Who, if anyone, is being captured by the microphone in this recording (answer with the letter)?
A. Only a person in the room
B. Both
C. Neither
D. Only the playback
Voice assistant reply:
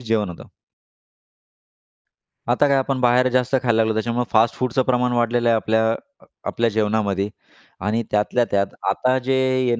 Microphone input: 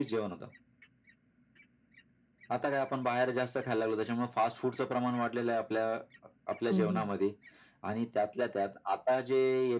B